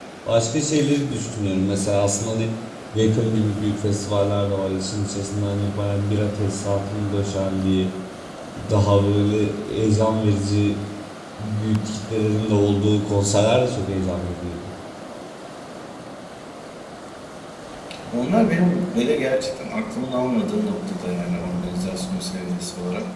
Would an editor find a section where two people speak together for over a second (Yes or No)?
No